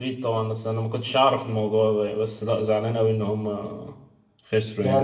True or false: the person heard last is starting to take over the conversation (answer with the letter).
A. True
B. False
A